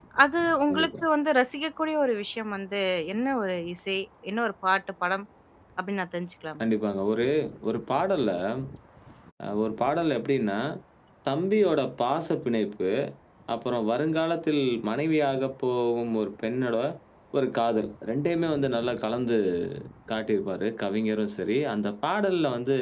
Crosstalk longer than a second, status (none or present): none